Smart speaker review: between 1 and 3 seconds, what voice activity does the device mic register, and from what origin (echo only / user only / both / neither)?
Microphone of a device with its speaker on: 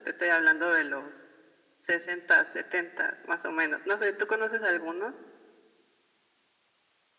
echo only